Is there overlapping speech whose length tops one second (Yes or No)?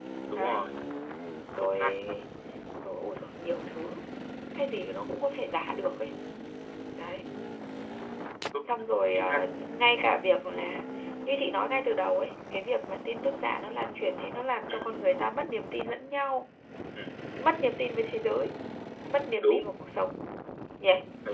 No